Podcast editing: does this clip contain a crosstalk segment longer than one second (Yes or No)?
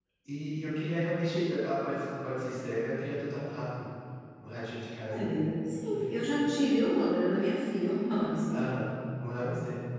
No